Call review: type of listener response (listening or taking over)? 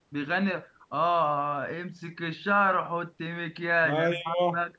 taking over